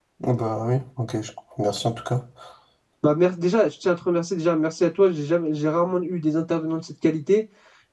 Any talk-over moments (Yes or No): No